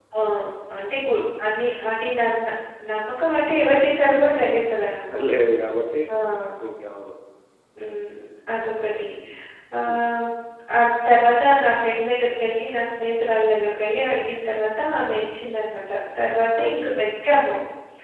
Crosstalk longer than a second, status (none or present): none